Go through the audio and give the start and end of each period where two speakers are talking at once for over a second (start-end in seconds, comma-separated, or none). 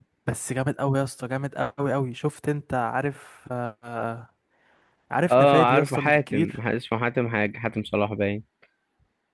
5.3-6.6